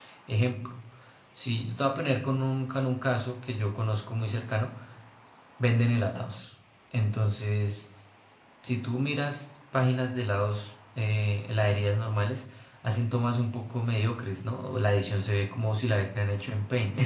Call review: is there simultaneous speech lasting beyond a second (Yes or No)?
No